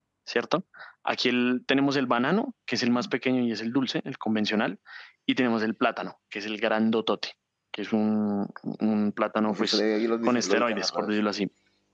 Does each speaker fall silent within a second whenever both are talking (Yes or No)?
No